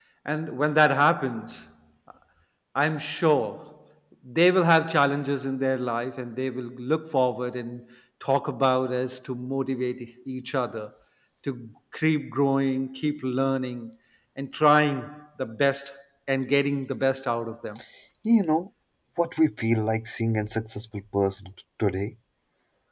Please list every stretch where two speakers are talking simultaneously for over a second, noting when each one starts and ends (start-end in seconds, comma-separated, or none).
none